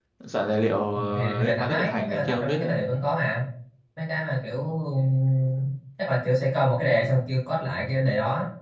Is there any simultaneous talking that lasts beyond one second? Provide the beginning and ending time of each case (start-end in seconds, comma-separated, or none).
0.9-2.8